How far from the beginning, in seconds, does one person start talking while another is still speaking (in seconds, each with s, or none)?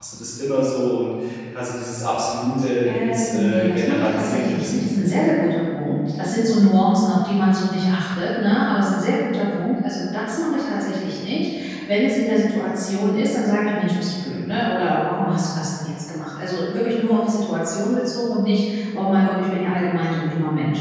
2.9 s